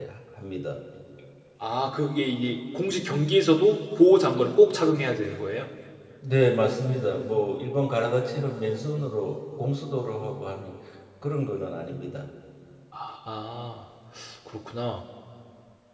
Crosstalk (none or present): none